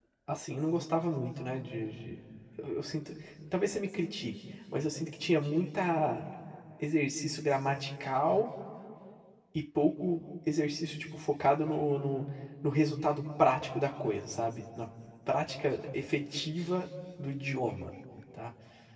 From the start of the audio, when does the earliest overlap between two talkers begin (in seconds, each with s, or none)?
none